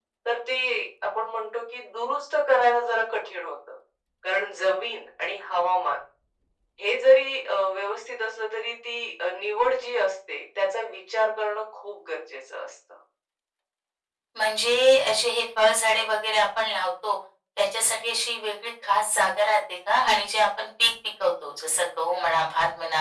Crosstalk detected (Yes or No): No